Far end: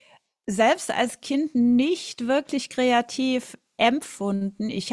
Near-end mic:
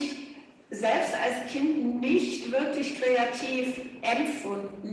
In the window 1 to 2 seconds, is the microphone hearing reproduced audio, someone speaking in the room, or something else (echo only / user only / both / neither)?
echo only